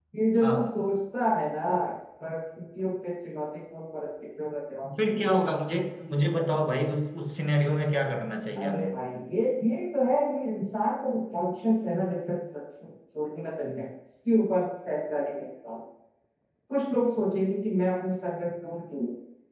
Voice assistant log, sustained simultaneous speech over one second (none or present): none